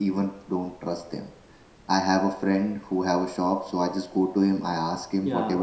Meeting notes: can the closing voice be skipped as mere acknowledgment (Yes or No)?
Yes